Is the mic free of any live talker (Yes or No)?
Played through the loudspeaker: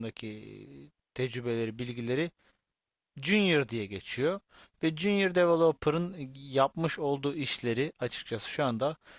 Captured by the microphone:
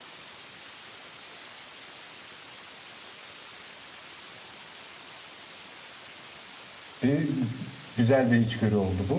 No